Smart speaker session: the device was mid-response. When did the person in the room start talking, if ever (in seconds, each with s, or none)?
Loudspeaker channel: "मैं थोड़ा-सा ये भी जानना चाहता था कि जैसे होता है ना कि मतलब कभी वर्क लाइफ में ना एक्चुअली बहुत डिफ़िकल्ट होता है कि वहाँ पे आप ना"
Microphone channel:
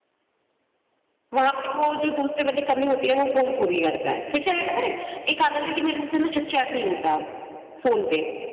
1.3 s